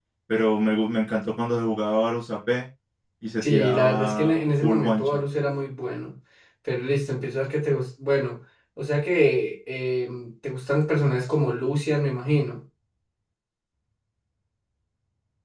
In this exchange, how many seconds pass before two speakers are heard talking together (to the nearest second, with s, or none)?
3 s